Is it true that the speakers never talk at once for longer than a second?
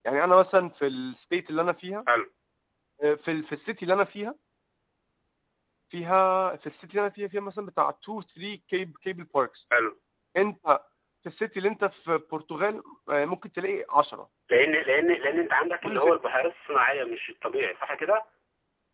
Yes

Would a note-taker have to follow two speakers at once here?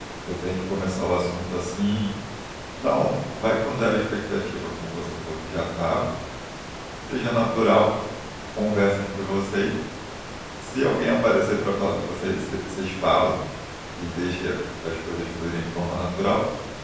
No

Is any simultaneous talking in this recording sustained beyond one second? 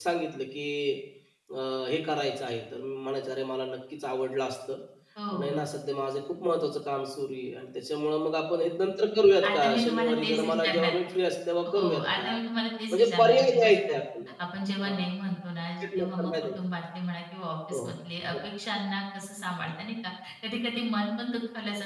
Yes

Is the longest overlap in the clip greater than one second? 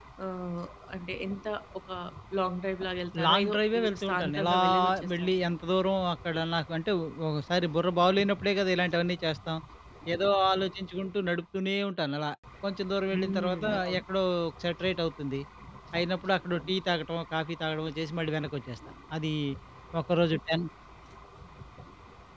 Yes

